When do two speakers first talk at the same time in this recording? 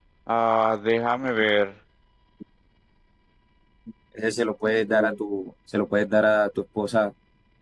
none

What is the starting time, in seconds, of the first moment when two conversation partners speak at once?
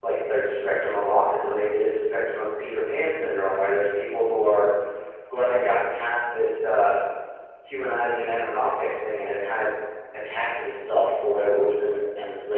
none

